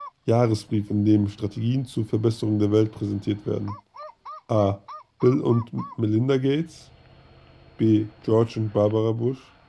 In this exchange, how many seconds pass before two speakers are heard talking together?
none

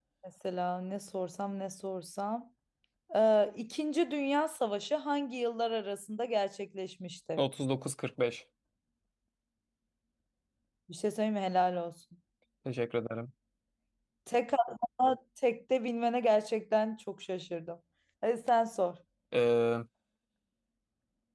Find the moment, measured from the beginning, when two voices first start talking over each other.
none

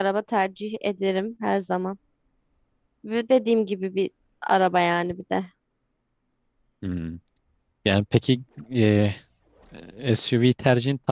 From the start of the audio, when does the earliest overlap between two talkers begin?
none

